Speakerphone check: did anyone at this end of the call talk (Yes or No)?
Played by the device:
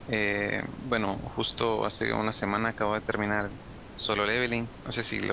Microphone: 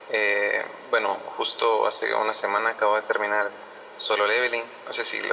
No